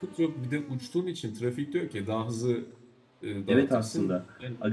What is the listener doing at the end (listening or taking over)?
taking over